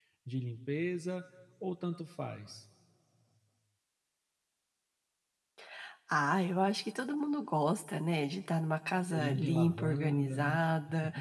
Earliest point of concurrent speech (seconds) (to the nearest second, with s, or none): 9 s